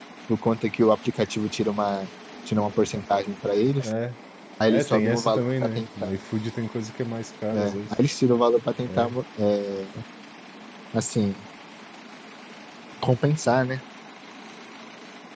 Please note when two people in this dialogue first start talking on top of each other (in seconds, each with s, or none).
4.7 s